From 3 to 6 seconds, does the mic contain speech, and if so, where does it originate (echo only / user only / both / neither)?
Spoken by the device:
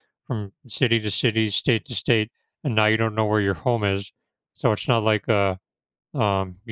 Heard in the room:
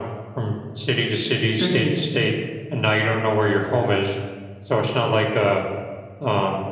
echo only